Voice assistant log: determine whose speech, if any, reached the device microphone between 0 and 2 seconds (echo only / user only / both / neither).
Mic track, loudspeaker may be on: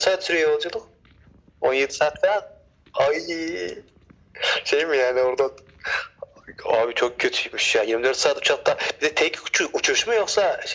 echo only